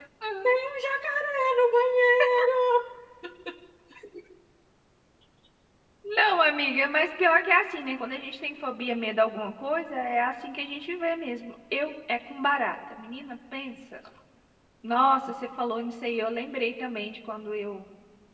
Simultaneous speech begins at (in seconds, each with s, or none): none